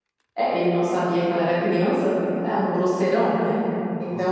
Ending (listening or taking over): listening